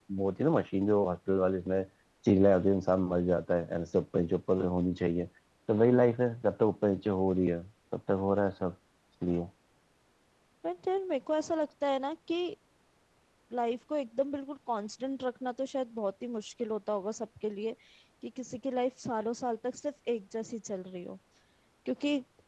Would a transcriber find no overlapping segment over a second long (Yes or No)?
Yes